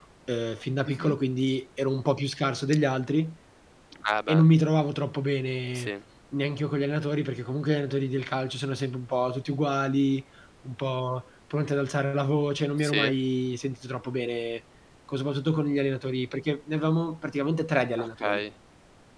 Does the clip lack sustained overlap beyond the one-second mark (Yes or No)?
Yes